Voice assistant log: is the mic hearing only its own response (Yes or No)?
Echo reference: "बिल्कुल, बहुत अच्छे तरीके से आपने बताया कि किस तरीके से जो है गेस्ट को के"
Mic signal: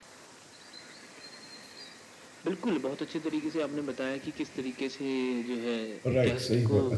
No